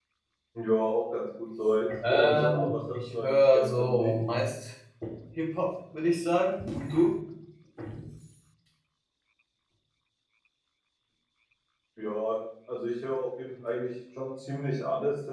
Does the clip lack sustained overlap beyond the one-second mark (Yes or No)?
No